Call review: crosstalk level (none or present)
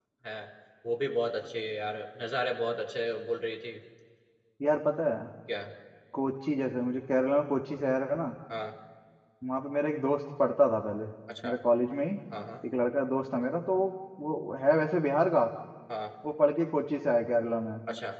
none